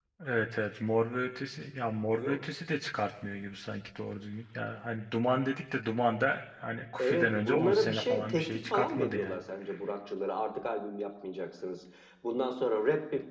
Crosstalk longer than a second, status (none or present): present